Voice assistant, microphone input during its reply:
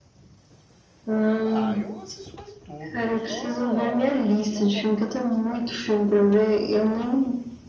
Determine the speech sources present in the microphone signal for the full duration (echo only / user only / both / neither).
both